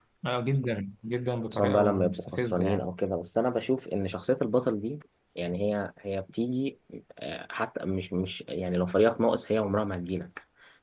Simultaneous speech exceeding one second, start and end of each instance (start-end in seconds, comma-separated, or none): 1.5-2.9